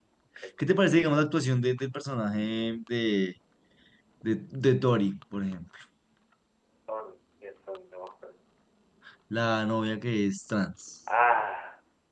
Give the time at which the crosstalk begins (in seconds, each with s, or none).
none